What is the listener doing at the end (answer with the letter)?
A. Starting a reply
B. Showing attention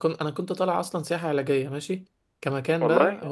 B